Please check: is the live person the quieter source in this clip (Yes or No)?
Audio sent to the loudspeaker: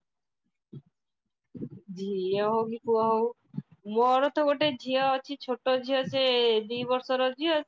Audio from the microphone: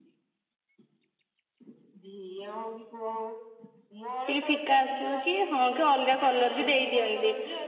No